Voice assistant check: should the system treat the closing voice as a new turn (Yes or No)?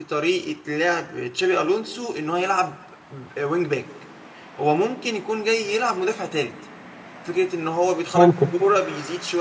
No